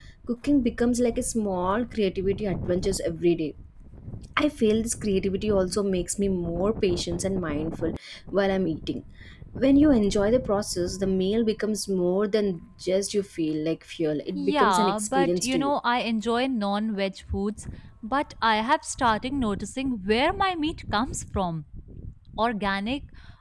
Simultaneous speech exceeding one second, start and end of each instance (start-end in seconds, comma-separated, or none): 14.3-15.7